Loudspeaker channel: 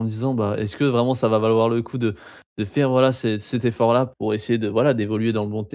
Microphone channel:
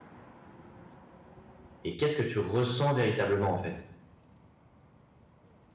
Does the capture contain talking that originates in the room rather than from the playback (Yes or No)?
Yes